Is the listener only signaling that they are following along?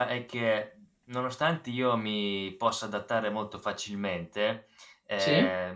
Yes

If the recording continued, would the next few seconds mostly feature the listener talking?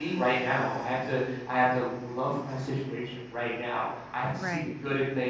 No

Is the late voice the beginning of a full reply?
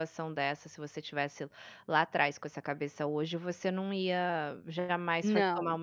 No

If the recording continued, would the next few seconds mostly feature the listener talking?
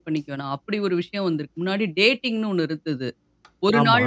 No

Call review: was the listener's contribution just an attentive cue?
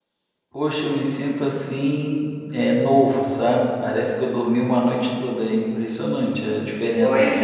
No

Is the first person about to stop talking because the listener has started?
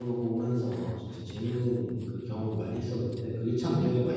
Yes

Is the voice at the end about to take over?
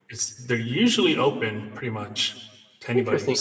Yes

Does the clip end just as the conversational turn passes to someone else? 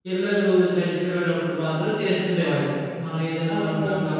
No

